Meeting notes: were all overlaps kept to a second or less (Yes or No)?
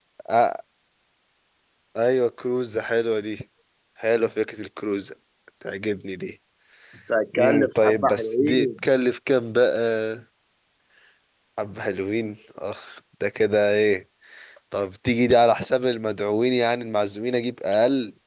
No